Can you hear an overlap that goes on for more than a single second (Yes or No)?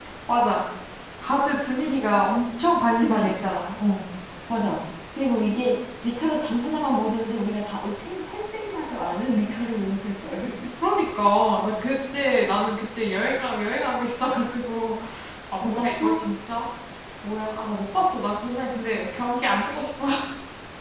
No